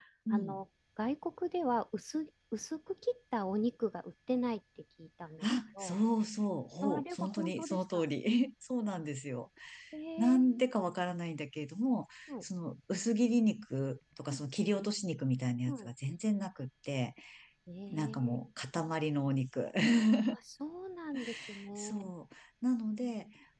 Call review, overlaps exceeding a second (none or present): present